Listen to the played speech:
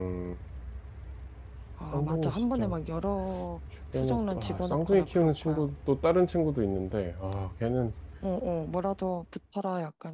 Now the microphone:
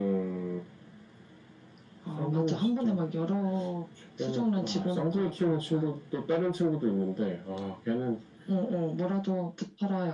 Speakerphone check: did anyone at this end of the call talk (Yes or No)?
No